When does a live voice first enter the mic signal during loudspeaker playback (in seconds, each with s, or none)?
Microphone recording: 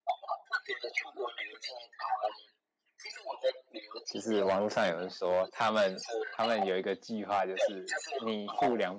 4.1 s